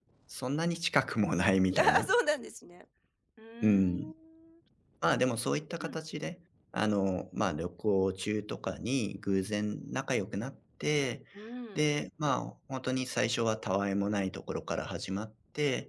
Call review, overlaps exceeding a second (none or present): none